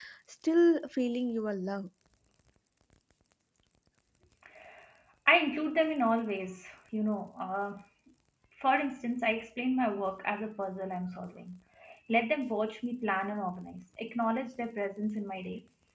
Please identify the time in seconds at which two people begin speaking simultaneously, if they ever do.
none

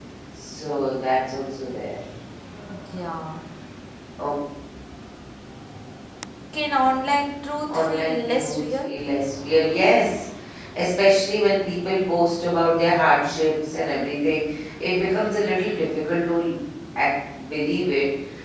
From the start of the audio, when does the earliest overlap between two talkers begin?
8 s

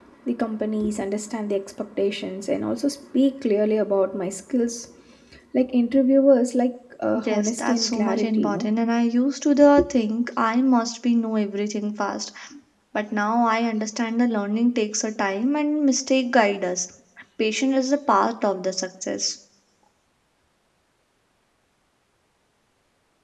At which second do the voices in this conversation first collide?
7 s

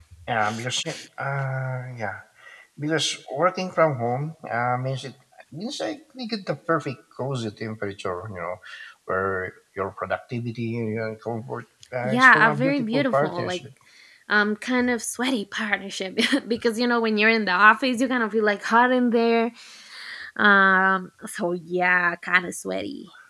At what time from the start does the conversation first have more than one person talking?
12 s

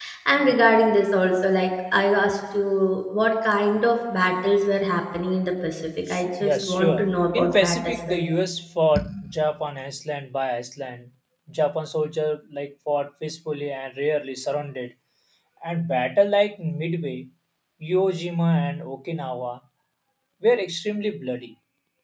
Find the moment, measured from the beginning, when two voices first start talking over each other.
6 s

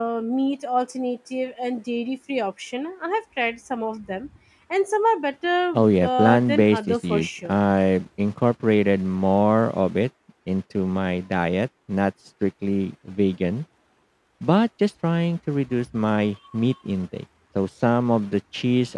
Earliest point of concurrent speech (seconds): 6 s

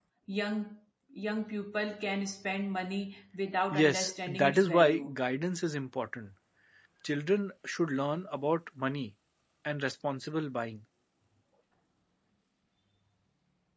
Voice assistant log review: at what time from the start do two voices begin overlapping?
4 s

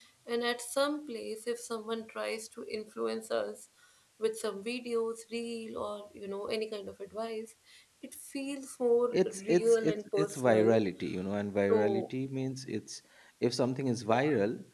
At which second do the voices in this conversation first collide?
9 s

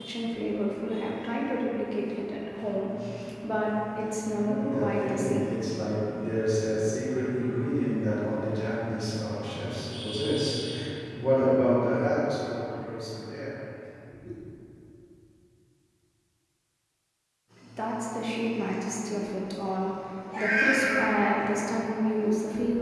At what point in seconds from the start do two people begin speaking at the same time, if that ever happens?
4 s

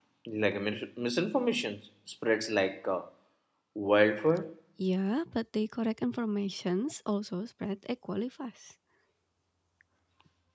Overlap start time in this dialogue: none

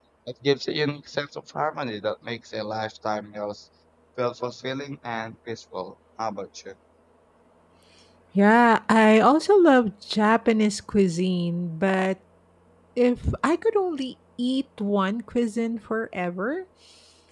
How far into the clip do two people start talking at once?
none

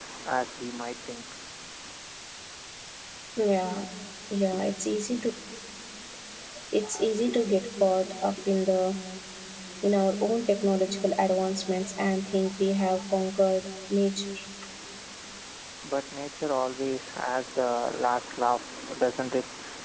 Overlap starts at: none

